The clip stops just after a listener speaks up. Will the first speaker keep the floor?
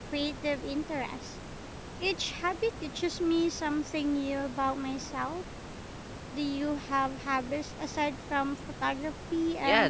No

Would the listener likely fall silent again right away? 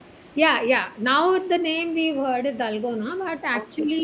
Yes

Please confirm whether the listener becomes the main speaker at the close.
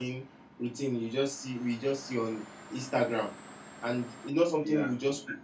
No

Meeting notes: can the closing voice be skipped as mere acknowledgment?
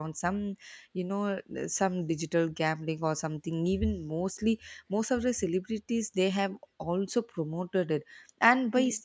Yes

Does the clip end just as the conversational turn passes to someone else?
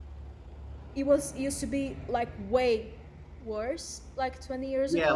Yes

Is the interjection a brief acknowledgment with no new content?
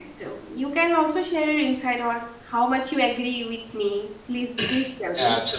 No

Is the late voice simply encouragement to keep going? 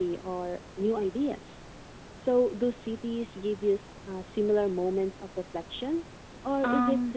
No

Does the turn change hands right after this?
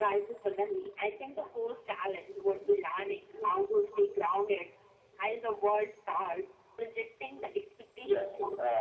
Yes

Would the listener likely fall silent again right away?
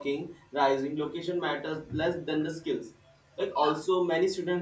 Yes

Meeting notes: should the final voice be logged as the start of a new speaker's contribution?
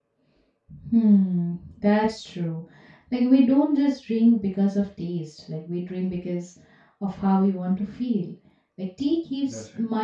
No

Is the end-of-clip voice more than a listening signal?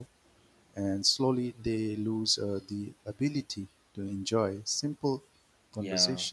No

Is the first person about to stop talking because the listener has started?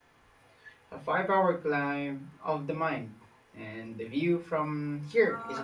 Yes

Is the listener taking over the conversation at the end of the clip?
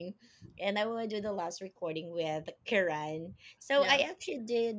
No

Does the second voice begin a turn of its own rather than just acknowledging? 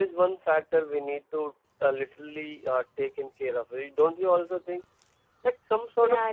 No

